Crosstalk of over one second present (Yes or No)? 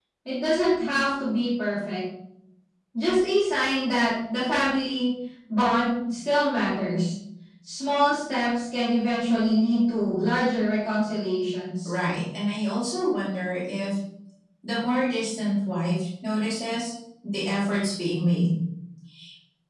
No